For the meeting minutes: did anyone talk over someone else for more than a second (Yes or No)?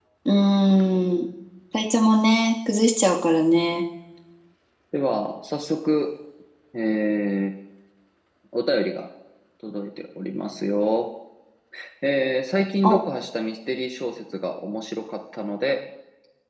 No